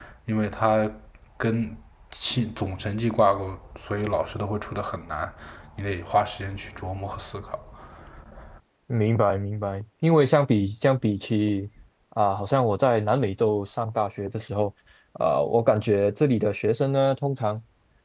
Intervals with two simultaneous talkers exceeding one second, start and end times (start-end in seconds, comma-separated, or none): none